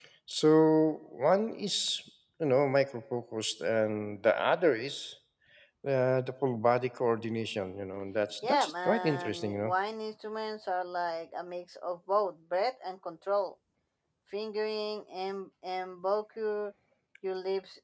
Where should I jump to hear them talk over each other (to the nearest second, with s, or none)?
8 s